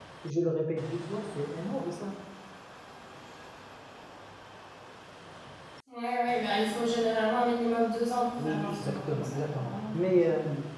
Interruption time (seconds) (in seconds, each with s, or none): 8.4 s